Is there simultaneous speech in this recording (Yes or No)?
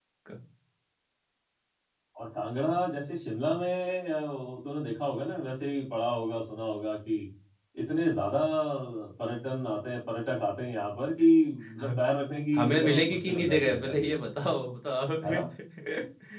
Yes